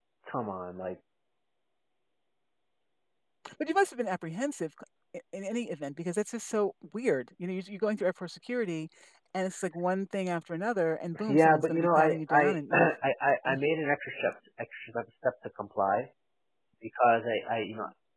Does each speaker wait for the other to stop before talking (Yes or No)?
No